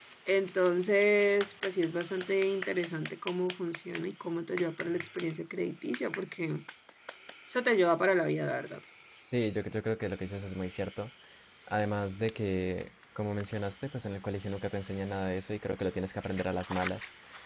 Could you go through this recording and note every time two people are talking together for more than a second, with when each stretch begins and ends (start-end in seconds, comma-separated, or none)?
none